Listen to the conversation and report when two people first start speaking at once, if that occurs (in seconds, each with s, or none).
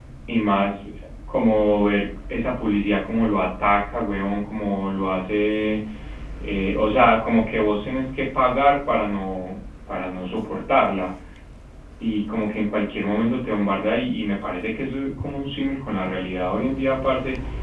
none